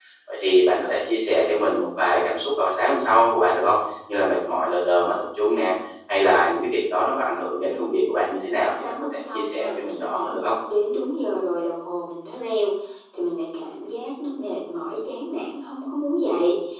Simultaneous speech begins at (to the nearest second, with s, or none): 9 s